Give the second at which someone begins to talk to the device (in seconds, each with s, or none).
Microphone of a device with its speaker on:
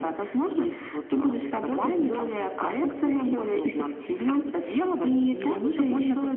none